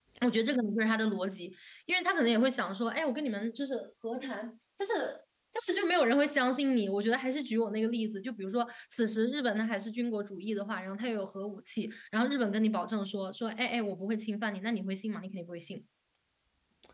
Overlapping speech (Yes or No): No